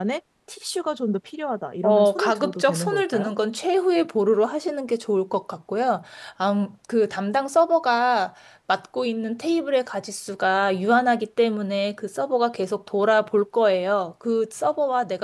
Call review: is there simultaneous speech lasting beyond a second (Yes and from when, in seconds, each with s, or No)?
Yes, from 1.8 s